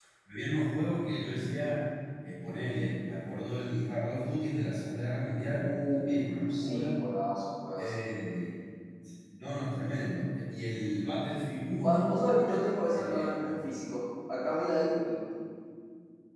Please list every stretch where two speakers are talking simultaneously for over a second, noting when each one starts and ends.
none

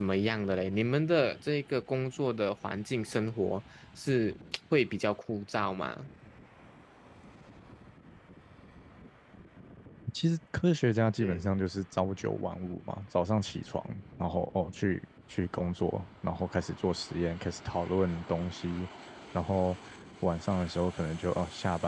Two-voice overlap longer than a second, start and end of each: none

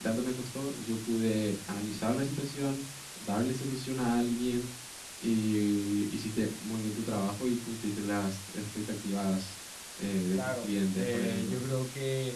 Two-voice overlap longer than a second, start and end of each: 10.4-11.6

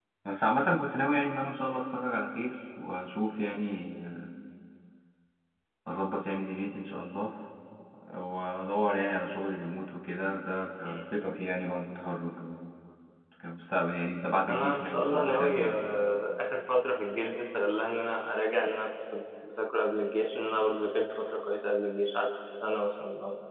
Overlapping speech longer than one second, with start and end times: 14.5-15.8

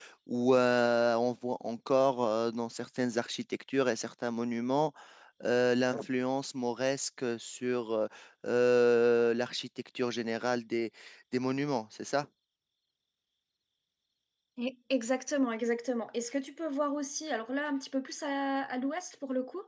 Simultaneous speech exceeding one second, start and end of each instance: none

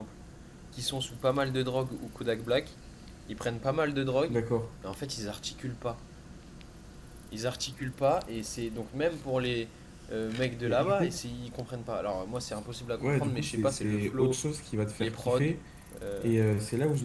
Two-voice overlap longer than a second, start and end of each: 13.0-14.4

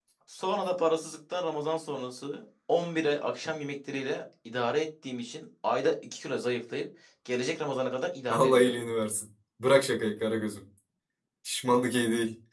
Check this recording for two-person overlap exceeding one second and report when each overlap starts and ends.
none

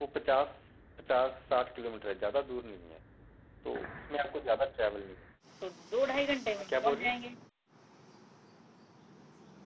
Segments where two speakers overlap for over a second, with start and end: none

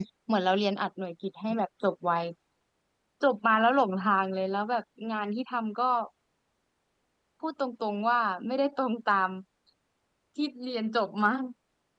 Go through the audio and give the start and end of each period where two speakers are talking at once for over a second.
none

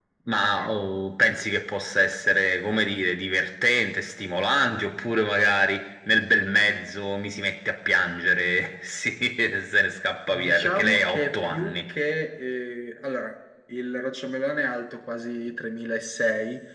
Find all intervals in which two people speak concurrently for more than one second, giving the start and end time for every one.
10.3-11.8

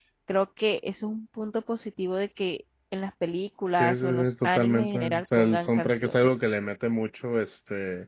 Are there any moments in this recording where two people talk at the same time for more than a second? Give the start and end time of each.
3.8-6.4

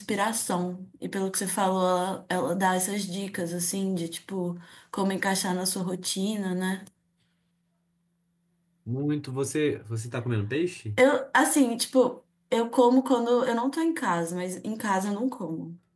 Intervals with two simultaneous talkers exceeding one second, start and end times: none

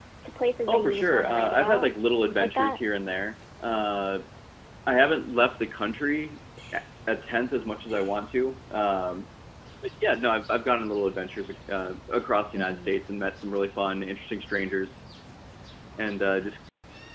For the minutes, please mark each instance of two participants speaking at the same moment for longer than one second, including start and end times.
0.7-1.9

